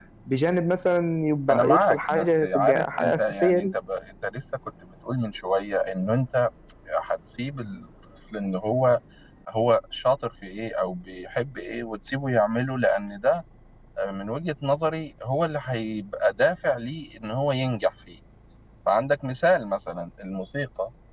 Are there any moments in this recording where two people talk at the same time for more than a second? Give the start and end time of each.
1.5-3.7

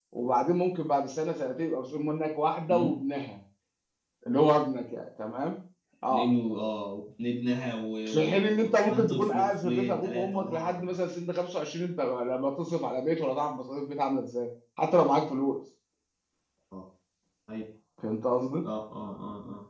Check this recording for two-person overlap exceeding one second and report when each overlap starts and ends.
8.1-11.0

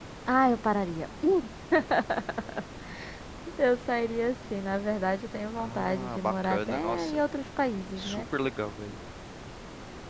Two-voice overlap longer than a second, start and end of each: 5.6-7.2

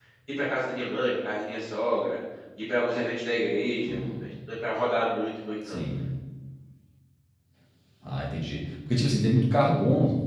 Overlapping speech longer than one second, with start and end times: none

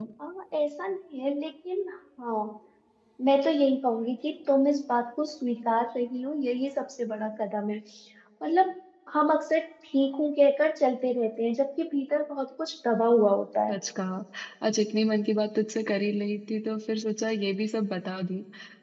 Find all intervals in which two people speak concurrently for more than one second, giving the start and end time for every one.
none

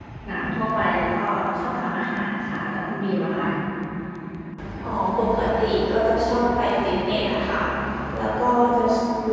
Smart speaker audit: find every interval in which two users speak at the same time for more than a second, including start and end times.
none

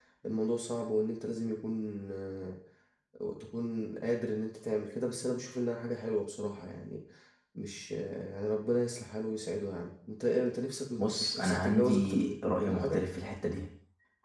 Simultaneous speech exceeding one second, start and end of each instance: 11.0-13.0

